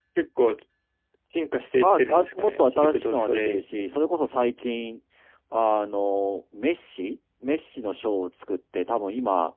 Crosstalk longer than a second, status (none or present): present